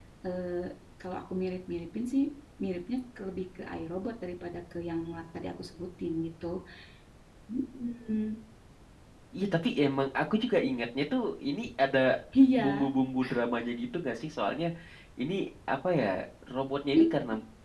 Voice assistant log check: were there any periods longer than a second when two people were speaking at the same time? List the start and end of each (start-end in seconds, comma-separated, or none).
none